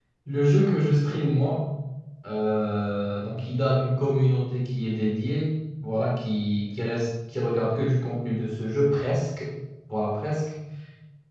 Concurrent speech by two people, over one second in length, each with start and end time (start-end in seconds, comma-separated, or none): none